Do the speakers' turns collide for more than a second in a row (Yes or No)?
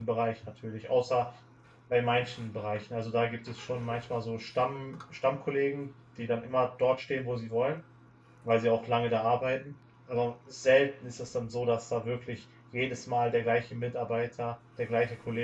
No